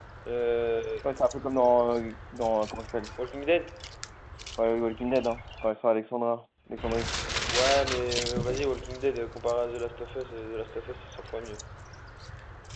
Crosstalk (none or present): none